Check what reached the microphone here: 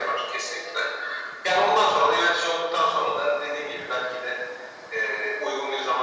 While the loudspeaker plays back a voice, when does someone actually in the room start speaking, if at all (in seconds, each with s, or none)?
none